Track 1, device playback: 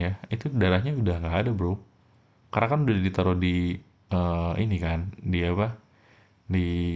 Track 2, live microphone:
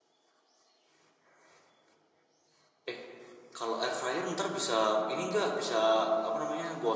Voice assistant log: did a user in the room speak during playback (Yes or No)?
Yes